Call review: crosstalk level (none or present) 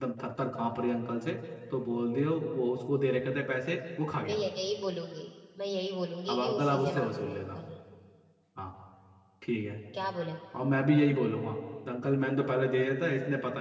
present